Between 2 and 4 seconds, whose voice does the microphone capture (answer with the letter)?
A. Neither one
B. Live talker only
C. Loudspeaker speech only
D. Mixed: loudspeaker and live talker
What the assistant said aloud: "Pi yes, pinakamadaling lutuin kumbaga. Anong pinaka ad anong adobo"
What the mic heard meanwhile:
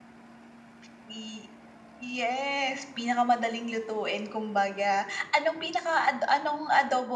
C